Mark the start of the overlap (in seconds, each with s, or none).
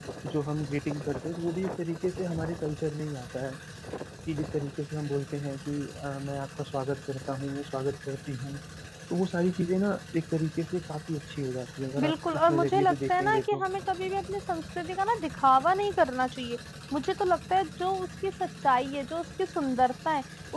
12.0 s